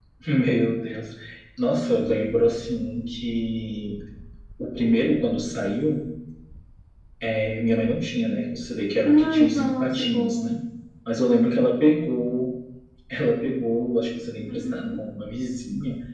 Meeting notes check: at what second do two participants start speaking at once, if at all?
9.1 s

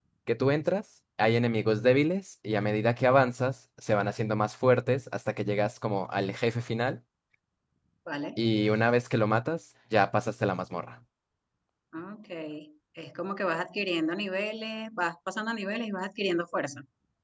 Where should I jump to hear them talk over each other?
none

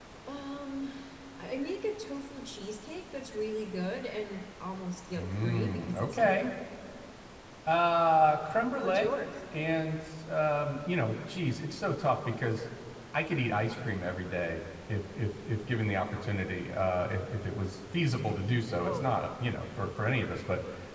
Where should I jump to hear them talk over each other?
5.2 s

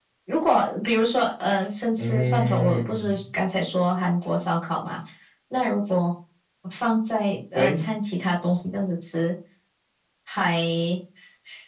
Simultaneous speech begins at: 2.0 s

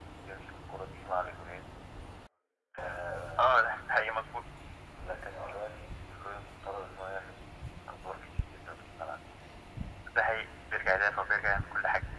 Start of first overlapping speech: none

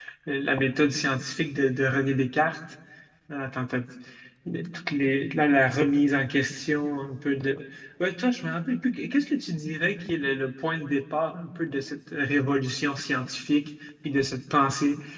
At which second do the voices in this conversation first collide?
none

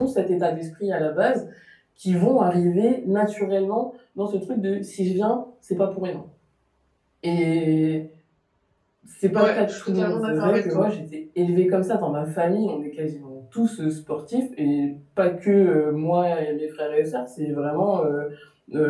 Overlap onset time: 9.3 s

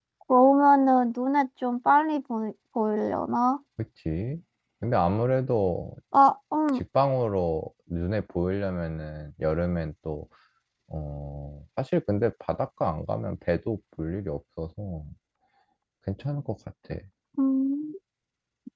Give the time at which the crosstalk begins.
none

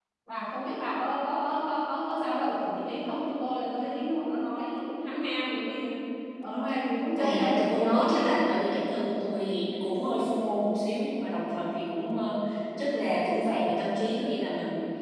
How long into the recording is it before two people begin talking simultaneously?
7.2 s

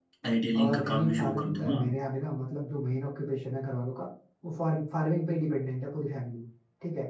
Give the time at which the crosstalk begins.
0.6 s

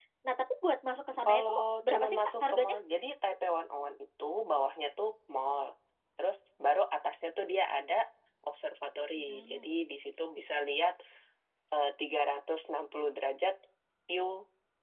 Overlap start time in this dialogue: 1.2 s

